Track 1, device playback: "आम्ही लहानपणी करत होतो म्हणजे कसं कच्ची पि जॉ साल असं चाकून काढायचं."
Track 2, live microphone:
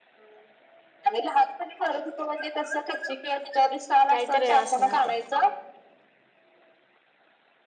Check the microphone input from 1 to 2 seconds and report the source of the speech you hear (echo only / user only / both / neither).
echo only